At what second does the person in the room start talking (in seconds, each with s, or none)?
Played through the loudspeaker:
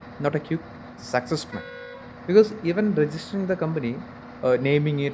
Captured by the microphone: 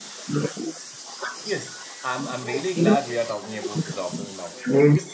1.4 s